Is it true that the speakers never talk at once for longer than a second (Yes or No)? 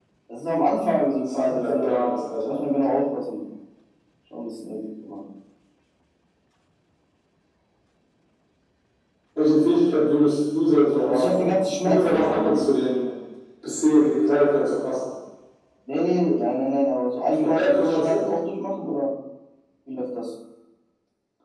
No